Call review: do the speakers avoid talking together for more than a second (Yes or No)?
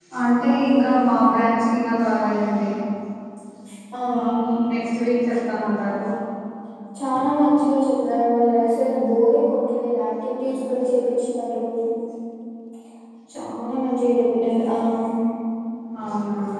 Yes